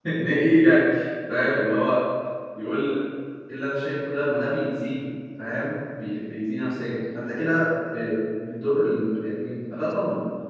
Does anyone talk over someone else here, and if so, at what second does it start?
none

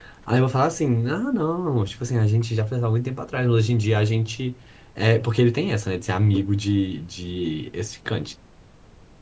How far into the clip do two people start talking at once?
none

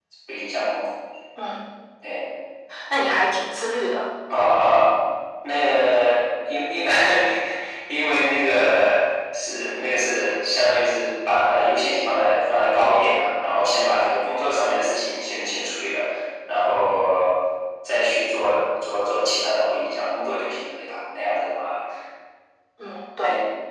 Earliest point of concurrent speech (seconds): none

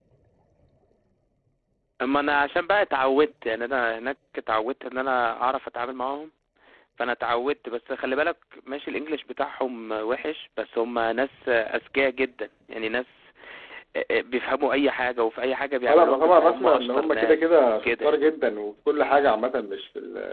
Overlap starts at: 15.9 s

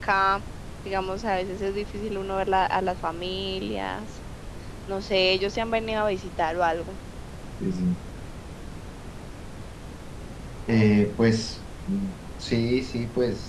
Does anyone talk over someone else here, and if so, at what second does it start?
none

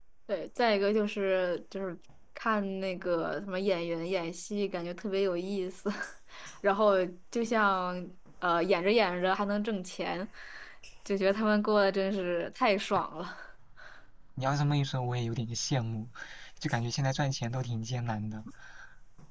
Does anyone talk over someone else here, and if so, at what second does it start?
none

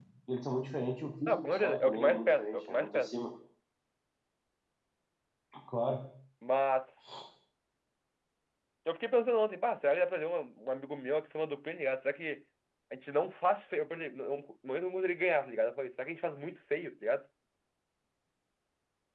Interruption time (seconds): 1.3 s

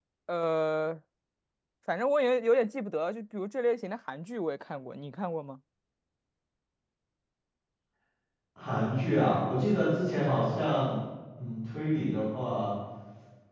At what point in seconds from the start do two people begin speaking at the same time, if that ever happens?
none

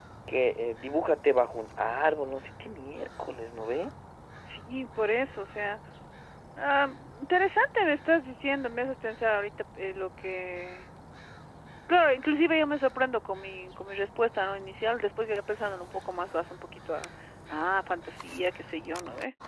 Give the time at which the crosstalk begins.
none

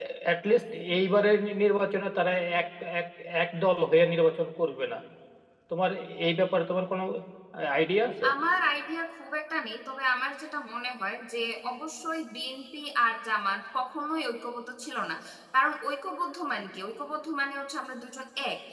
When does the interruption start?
none

